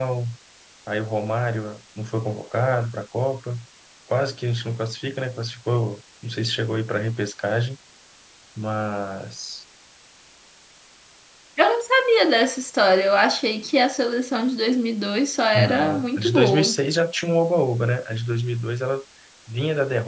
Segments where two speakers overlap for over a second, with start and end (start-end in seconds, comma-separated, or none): 15.5-16.8